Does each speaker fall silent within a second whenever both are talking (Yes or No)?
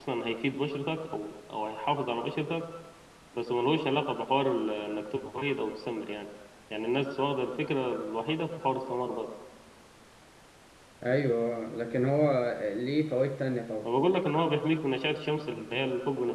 Yes